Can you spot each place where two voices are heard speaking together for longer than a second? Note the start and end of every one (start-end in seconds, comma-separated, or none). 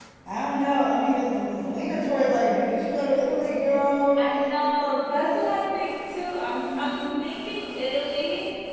none